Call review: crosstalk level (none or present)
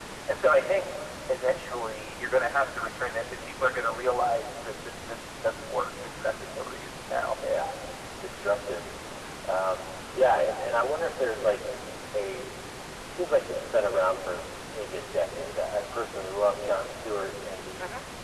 none